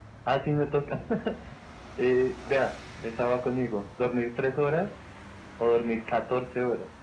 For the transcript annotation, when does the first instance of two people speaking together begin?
none

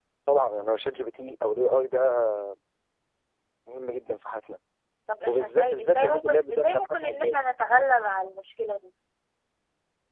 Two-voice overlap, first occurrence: 5.3 s

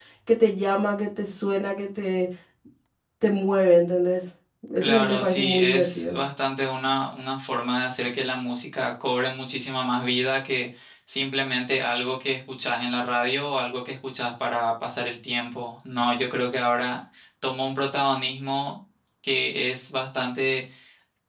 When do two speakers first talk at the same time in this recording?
4.8 s

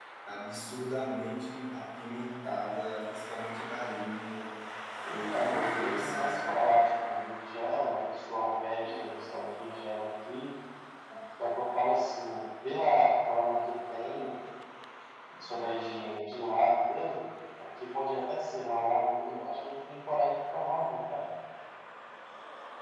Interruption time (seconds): 5.1 s

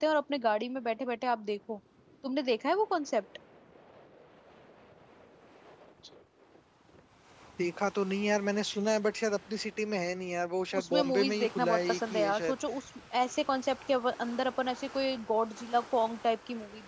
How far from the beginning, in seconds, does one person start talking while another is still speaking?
10.7 s

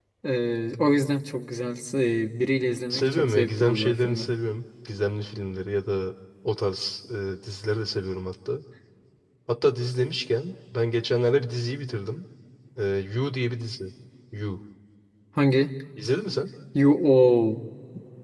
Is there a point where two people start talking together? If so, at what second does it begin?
2.9 s

